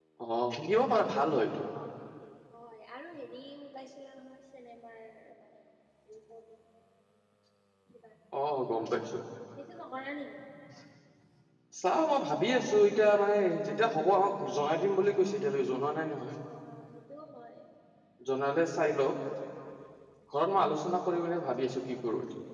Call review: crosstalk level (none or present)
none